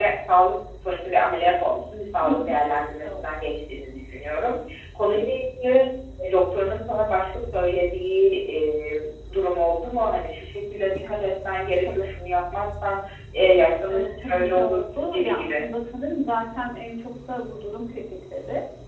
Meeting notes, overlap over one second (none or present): present